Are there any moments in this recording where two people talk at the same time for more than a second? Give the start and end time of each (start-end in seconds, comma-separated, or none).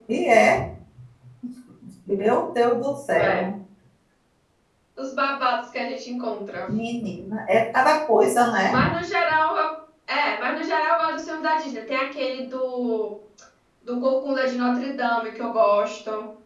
none